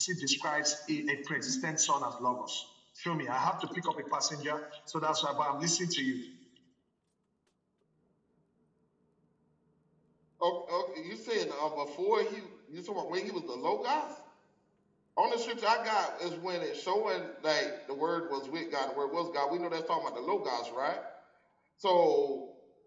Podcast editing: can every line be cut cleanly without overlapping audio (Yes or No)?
Yes